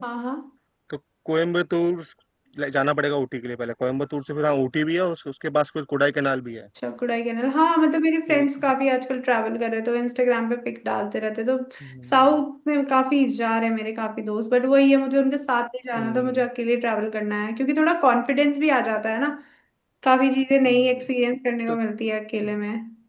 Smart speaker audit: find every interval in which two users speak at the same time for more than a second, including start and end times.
none

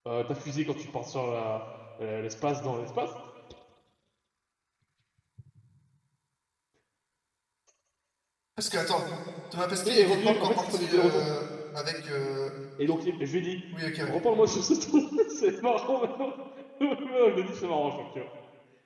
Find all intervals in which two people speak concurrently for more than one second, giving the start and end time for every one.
9.8-11.2

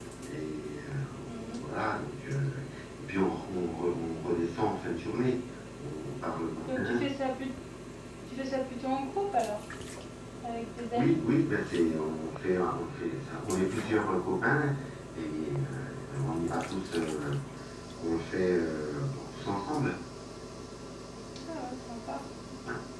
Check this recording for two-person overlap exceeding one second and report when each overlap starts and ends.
none

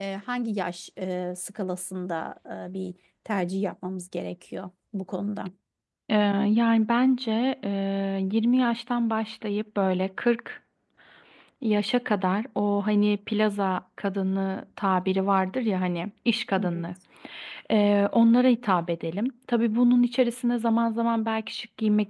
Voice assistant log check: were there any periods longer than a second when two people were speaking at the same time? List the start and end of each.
none

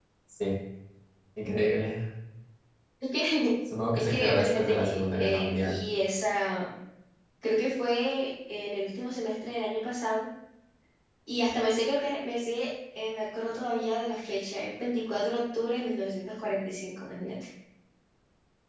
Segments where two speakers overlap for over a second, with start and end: 4.0-5.8

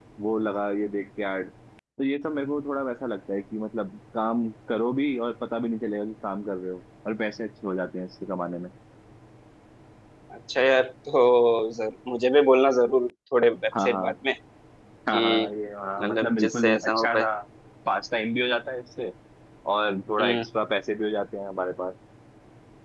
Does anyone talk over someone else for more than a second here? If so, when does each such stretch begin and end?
16.0-17.3

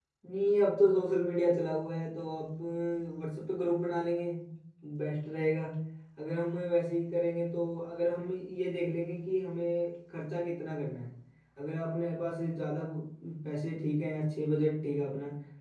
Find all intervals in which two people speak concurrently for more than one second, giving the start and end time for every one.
none

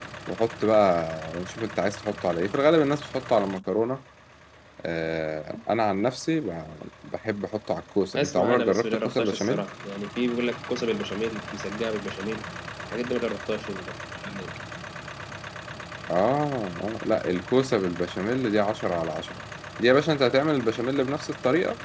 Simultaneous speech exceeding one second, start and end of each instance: 8.2-9.6

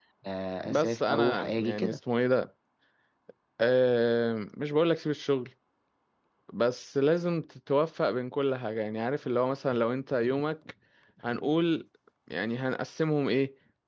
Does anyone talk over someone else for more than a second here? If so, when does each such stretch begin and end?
0.6-2.0

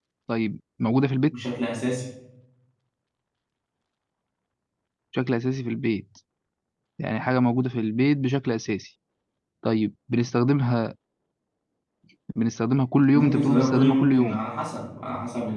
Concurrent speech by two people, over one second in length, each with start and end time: 13.1-14.4

